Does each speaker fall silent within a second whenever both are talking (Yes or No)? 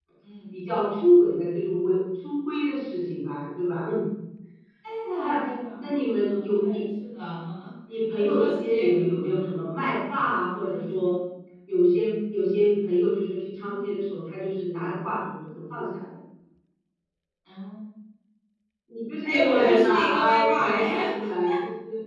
No